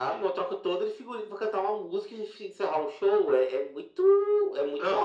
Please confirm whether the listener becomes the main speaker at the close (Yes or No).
Yes